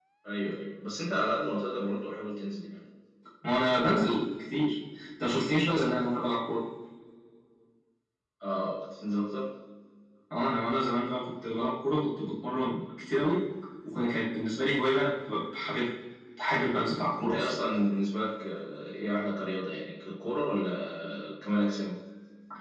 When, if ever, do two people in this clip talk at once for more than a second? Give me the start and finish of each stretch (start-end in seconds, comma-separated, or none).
none